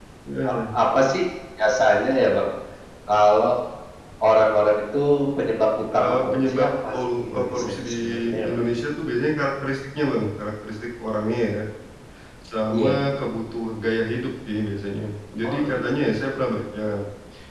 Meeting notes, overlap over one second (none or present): present